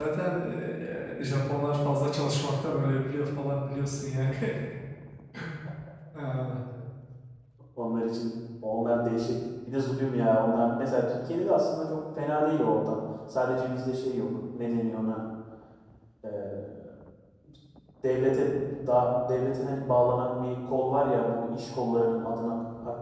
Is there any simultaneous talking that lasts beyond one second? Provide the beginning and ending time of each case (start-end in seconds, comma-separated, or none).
none